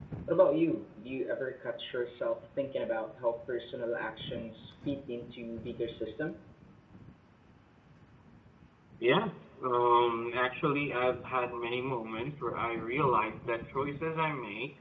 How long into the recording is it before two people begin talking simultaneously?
none

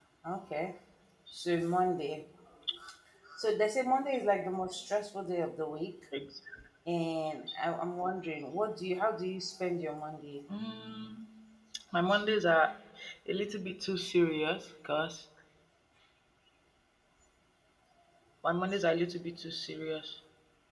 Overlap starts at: none

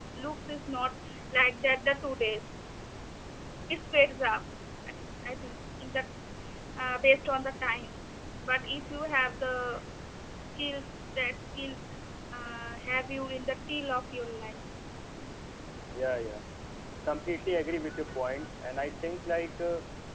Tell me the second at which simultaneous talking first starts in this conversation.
none

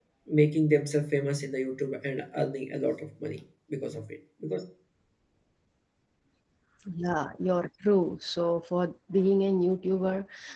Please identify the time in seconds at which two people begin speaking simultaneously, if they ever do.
none

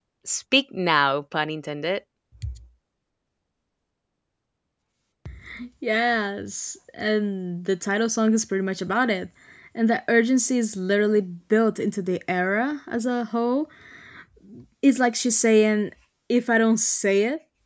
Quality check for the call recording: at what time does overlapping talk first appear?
none

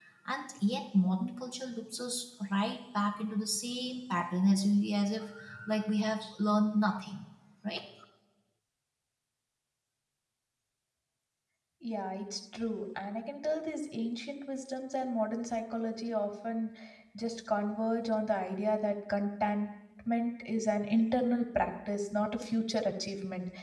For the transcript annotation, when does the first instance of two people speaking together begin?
none

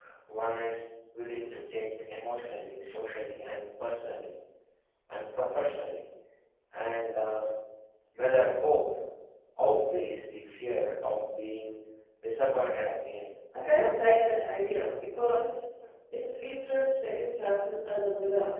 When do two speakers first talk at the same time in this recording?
none

